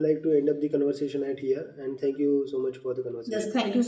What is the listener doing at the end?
taking over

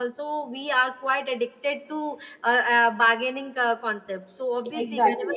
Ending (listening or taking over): taking over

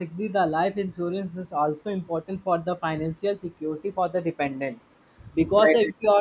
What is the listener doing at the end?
listening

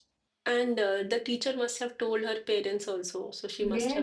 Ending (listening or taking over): taking over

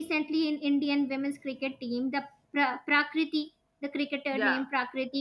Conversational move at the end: listening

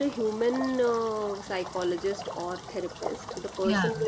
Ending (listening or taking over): listening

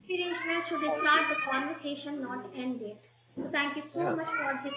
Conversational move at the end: listening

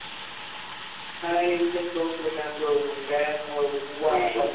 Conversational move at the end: taking over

